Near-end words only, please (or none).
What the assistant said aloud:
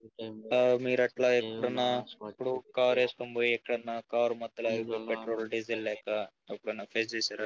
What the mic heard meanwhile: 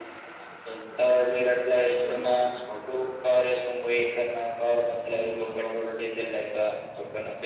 none